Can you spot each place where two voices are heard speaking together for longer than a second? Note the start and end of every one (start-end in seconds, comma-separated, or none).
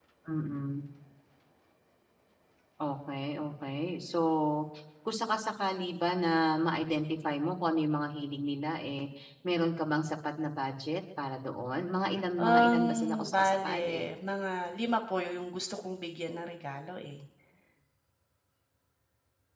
12.4-14.1